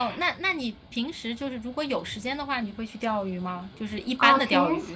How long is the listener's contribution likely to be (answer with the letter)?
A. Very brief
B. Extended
B